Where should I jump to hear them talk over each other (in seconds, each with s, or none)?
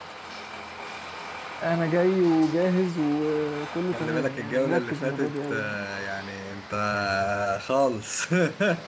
3.9 s